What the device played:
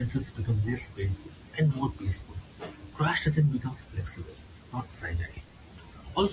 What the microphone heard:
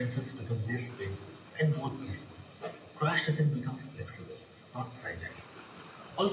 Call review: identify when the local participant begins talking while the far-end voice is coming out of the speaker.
none

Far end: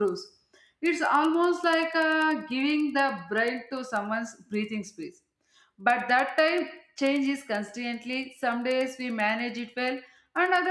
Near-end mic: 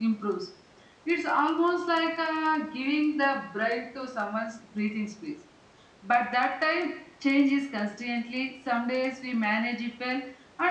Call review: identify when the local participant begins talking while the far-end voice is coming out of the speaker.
none

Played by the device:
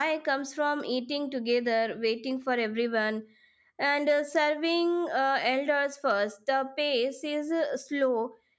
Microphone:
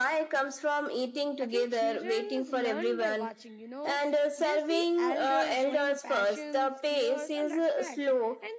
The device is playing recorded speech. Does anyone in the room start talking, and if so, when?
1.4 s

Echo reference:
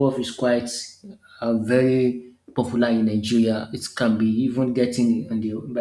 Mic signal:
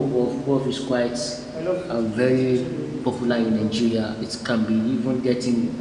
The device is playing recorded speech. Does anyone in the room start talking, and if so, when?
1.5 s

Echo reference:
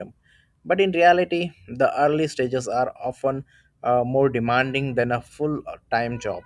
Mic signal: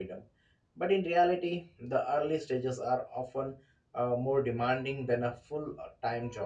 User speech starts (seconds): none

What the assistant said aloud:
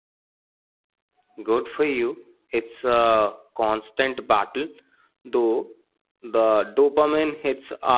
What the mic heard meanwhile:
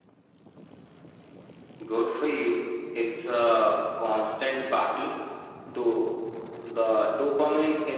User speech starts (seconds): none

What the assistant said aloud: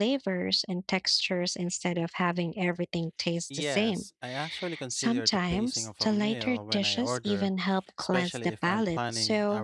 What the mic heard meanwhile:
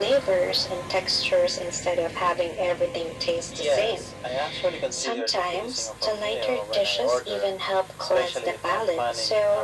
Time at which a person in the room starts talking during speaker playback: none

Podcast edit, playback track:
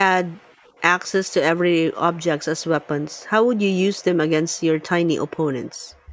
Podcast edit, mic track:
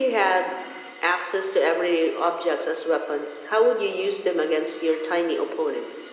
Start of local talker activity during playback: none

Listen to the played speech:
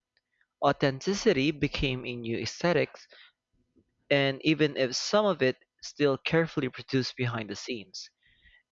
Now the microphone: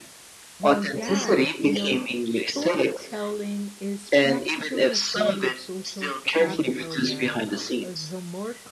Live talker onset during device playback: 0.6 s

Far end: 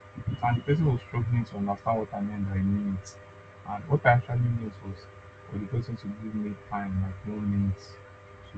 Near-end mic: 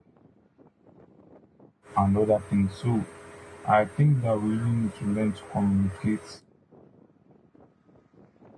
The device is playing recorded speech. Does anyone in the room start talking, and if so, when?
2.0 s

